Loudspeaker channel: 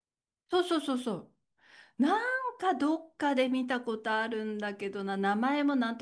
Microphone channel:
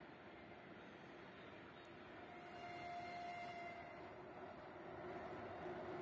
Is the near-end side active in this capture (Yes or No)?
No